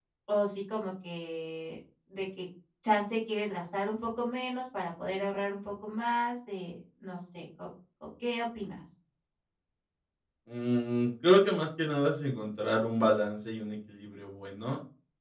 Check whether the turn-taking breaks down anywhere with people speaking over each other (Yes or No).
No